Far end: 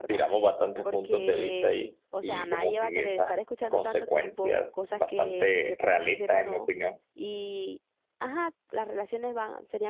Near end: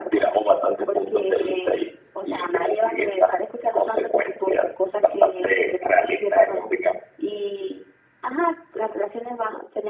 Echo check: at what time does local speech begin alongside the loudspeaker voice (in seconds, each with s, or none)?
none